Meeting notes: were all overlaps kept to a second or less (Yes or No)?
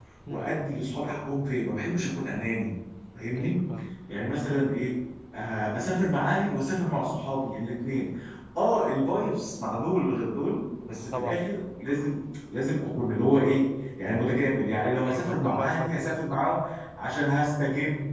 No